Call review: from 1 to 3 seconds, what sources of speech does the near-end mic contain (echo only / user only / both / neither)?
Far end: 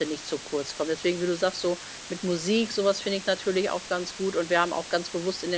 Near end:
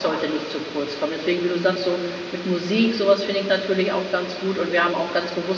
echo only